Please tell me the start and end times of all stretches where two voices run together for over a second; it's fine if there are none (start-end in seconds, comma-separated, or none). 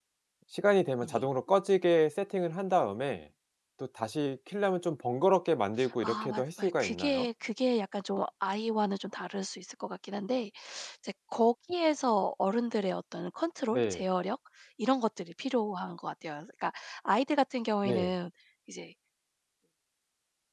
6.0-7.3